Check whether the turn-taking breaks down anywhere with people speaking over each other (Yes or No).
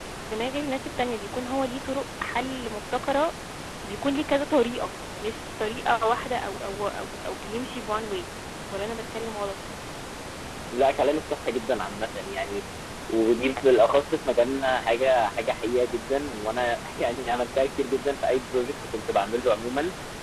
No